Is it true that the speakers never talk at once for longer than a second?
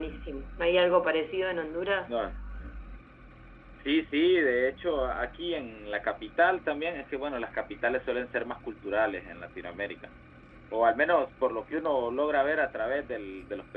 Yes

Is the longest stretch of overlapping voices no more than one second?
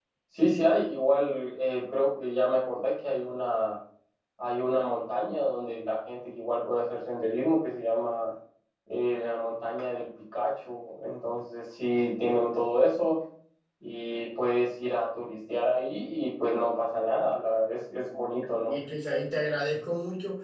Yes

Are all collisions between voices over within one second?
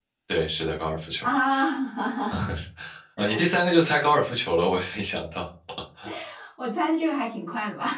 Yes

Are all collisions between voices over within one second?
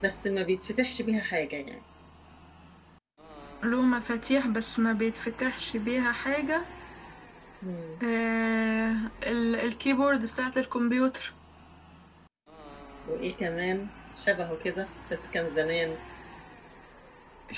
Yes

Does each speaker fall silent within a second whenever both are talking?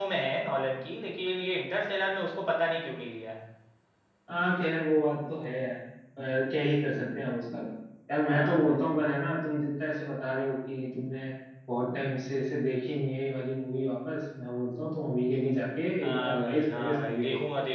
No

